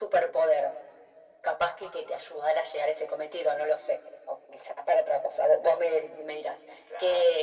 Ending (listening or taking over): listening